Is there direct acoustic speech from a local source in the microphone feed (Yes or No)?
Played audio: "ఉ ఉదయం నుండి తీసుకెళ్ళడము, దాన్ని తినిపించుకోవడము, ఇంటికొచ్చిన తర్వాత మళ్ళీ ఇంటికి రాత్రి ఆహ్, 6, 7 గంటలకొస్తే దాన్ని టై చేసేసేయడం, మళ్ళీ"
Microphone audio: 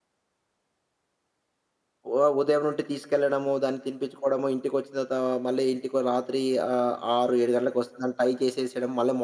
No